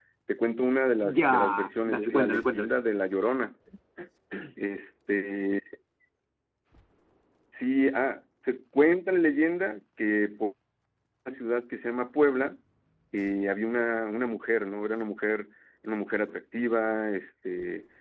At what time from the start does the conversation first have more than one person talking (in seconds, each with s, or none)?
1.0 s